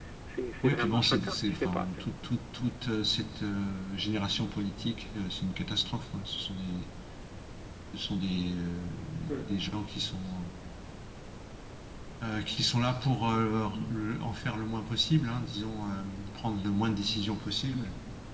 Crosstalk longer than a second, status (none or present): present